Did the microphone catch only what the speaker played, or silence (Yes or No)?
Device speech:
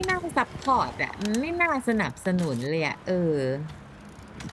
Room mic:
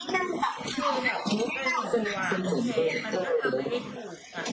No